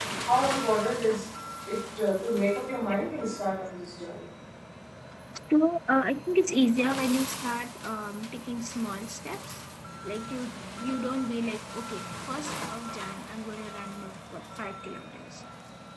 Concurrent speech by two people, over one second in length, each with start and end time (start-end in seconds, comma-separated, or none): none